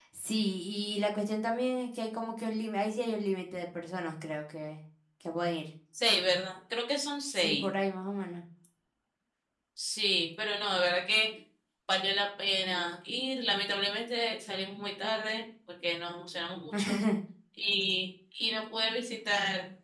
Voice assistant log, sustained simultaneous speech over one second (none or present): none